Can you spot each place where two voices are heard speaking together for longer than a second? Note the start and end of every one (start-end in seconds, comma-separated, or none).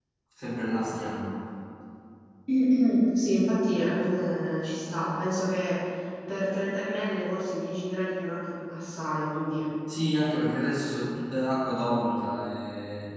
none